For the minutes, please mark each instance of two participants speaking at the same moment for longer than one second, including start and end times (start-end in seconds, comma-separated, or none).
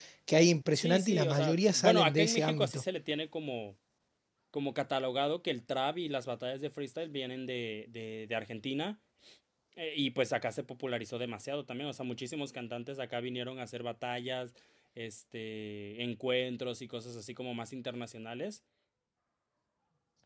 0.7-2.8